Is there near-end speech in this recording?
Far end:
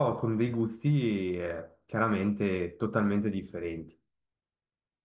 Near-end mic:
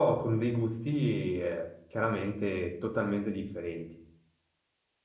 No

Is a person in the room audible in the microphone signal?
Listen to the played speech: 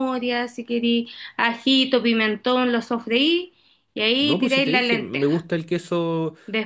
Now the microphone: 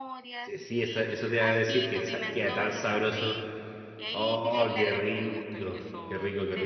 Yes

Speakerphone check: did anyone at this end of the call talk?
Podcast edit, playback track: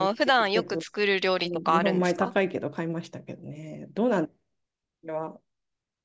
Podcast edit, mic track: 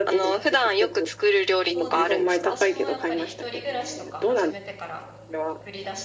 Yes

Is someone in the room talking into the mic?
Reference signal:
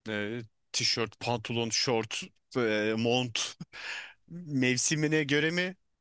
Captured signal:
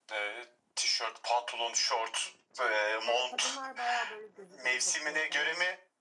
Yes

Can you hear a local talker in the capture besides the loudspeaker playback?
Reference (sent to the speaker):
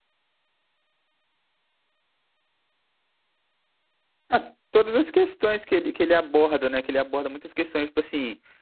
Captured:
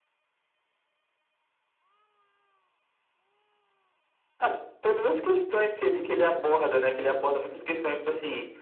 No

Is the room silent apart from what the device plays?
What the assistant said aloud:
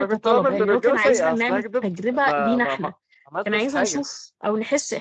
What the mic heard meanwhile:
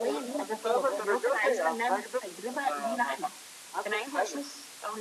Yes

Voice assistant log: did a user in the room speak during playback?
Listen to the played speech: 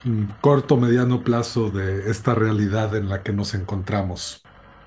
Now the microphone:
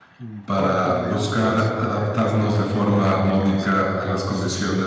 Yes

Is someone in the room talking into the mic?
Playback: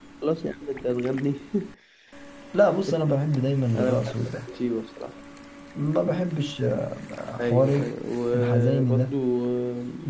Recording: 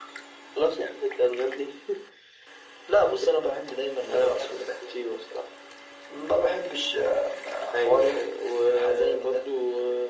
No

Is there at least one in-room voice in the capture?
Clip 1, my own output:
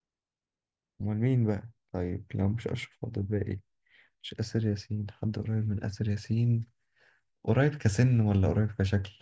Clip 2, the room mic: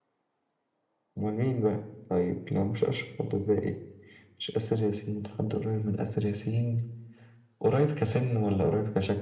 No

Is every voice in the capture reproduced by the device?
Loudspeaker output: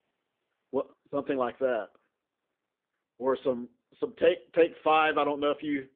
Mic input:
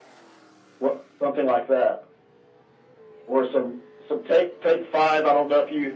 Yes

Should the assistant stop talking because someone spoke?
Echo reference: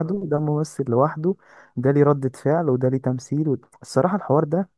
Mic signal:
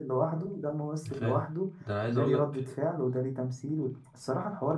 Yes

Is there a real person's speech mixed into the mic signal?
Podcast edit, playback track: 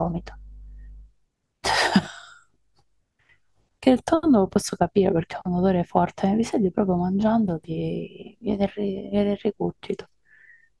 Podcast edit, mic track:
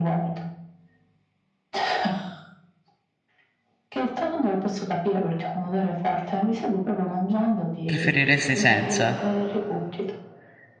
Yes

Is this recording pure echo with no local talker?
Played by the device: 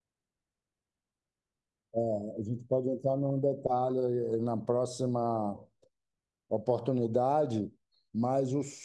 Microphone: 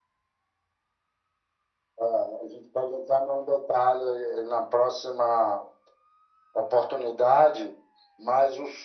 Yes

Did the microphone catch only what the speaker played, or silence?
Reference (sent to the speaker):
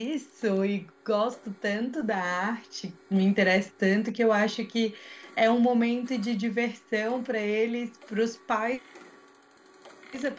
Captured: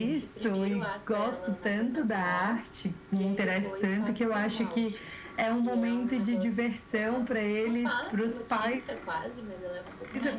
No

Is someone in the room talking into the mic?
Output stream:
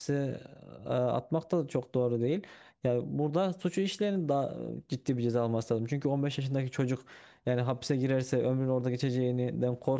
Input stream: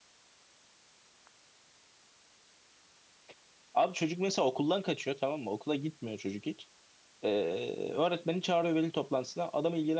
Yes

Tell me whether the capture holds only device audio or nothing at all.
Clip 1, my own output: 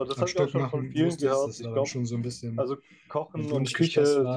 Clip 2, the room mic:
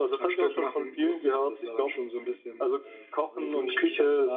No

